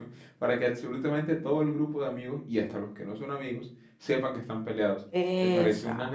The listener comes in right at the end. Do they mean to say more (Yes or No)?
No